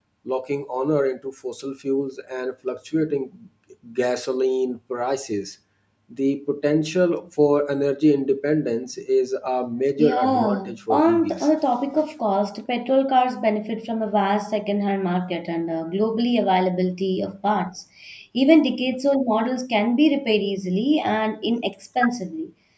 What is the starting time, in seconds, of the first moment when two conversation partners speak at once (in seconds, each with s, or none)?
10.0 s